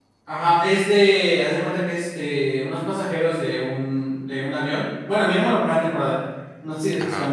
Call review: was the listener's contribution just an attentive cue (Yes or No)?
Yes